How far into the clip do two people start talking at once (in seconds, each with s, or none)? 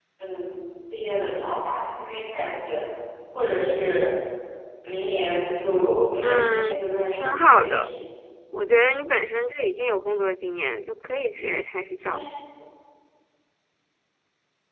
6.2 s